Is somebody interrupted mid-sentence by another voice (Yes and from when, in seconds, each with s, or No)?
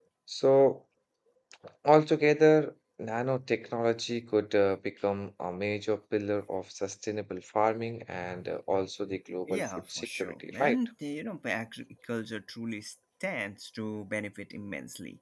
Yes, from 9.5 s